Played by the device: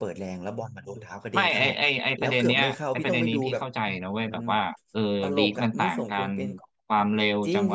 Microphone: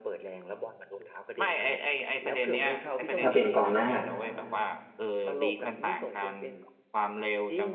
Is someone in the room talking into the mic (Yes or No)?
Yes